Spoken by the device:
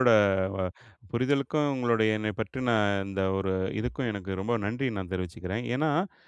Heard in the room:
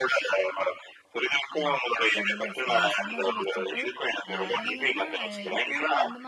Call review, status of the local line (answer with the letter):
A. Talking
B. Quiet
A